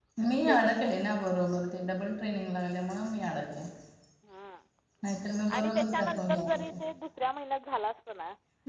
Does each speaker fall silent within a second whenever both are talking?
No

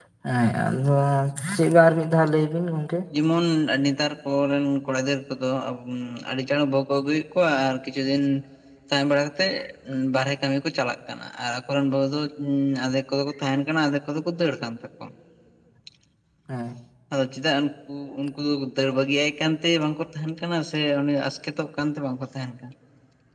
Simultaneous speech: No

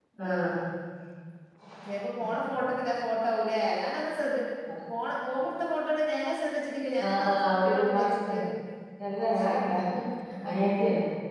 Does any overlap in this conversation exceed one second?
Yes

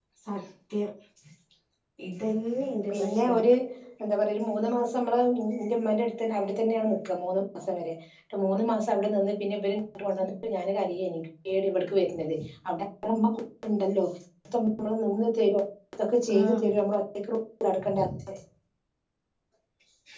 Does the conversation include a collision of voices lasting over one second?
No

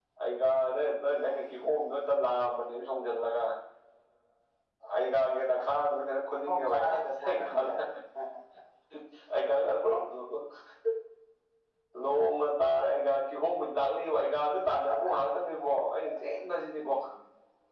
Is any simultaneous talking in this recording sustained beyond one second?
Yes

